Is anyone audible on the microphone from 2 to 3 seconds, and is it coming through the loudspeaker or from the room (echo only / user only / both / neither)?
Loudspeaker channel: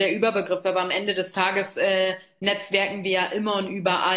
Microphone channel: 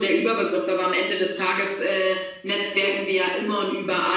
echo only